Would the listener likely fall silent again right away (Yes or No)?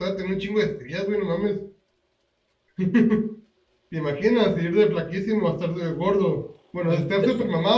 Yes